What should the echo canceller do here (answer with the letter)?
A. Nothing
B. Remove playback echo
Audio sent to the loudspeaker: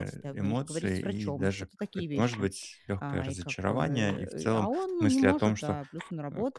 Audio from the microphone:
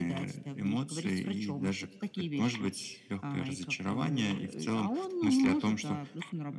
B